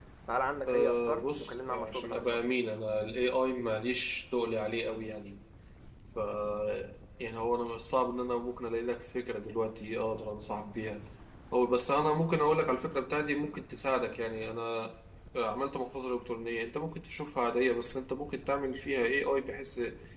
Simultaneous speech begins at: 0.7 s

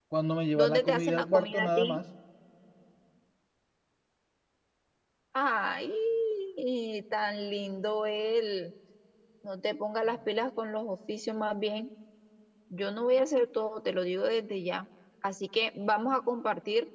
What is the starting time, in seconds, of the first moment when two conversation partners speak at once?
0.6 s

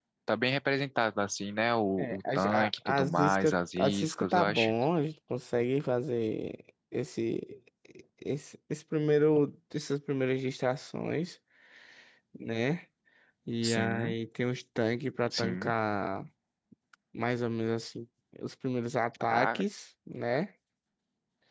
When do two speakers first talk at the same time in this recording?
2.0 s

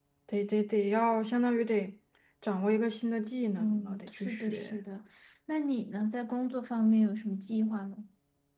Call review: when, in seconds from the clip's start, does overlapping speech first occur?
3.6 s

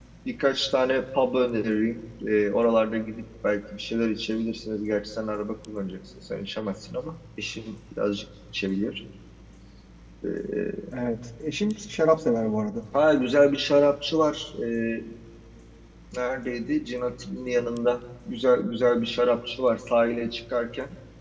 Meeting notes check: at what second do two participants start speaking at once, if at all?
none

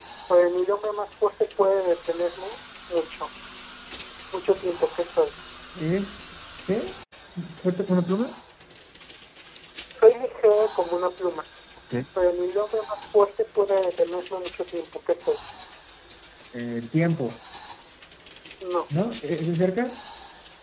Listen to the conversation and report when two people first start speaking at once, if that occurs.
none

